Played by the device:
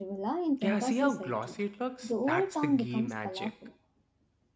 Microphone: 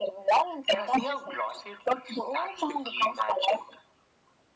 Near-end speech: none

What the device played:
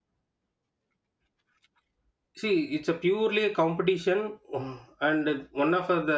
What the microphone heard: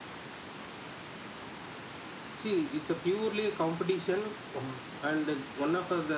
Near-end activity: none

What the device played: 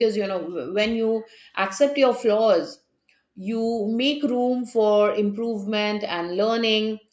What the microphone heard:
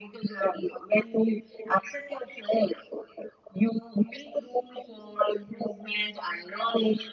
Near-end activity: none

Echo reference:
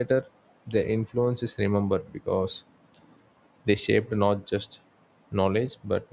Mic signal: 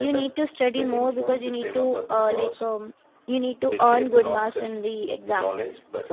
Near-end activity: present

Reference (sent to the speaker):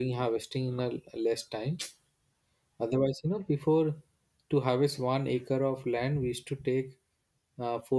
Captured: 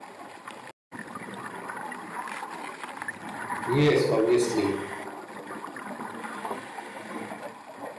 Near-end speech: present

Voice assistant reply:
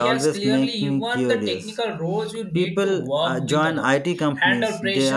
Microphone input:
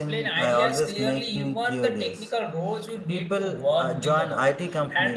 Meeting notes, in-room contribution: none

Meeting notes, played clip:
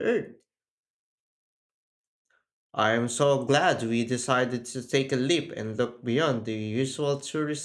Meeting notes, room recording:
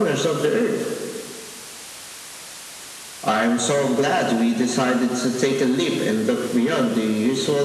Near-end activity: none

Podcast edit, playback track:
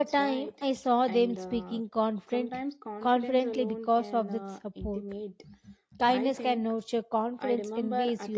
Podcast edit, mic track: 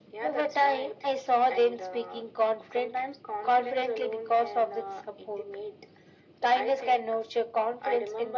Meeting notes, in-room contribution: none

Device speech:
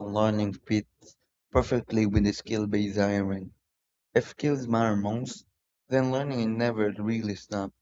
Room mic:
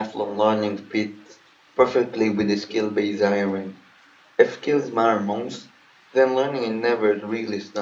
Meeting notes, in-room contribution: none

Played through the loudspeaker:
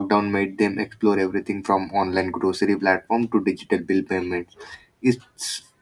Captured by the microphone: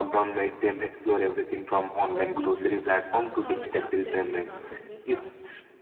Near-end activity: present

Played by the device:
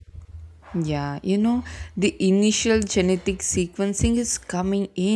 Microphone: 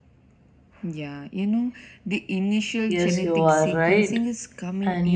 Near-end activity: present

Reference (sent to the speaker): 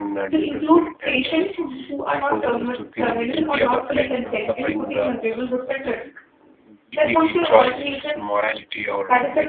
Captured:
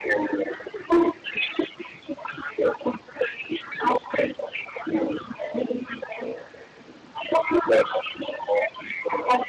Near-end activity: none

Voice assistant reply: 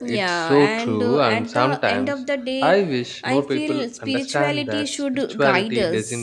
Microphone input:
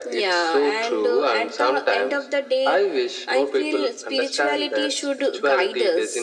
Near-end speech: none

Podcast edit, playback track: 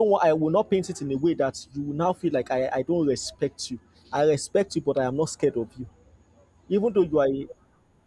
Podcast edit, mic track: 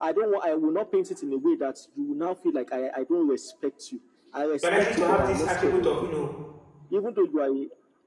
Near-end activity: present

